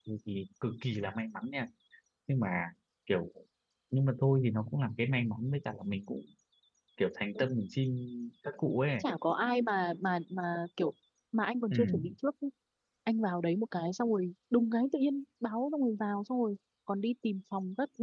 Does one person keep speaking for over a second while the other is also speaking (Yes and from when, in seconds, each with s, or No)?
No